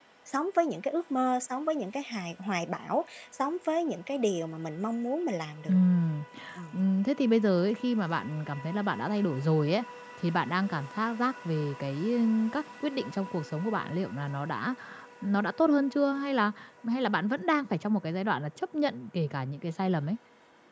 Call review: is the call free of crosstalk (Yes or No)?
Yes